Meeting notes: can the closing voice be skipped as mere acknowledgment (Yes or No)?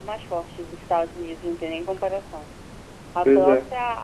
Yes